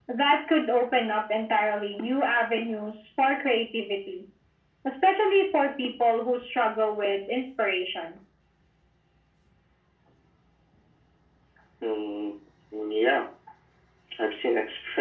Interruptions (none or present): none